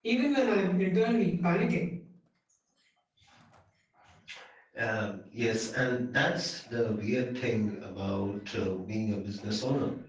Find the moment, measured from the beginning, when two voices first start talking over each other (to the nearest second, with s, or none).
none